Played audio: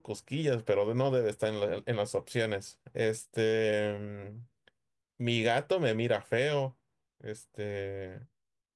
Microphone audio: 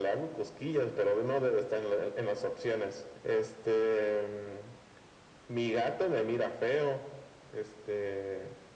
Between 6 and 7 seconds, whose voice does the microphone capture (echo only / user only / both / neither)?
echo only